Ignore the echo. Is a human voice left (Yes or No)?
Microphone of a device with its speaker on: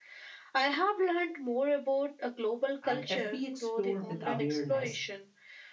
Yes